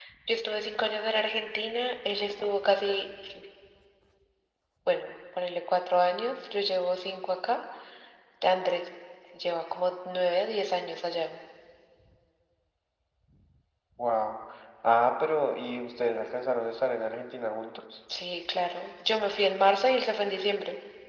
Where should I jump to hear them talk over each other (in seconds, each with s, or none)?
none